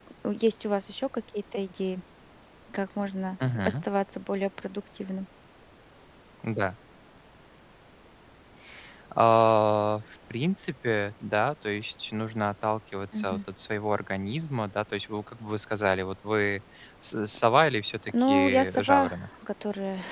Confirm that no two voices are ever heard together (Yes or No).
No